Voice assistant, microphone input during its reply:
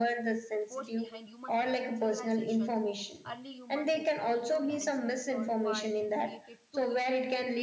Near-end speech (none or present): present